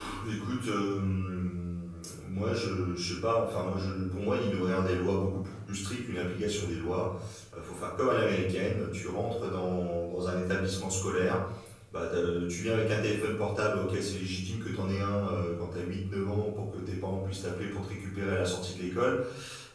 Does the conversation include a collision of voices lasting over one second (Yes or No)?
No